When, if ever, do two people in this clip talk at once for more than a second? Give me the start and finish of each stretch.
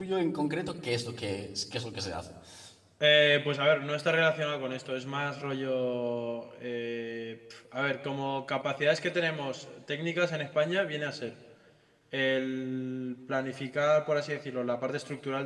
none

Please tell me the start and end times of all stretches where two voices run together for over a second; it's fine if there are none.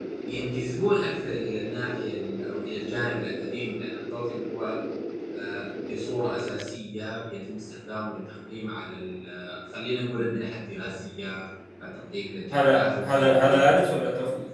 12.5-13.8

